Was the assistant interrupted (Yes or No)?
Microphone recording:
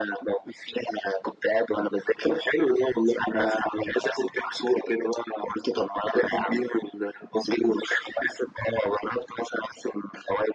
No